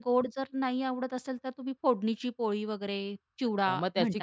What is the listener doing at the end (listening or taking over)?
taking over